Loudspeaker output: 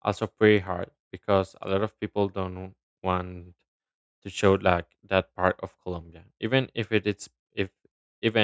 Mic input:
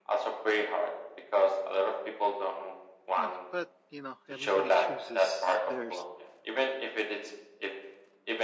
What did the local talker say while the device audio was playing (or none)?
Eh, But you know, everybody chooses their s-